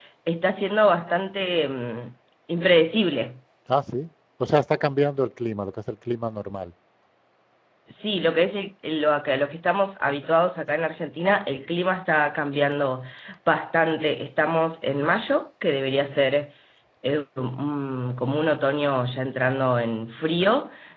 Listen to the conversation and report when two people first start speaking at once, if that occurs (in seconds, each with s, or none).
none